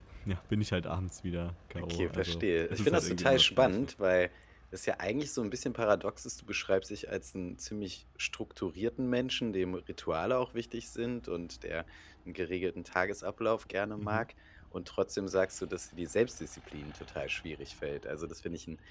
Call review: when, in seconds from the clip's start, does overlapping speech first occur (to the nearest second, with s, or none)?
2 s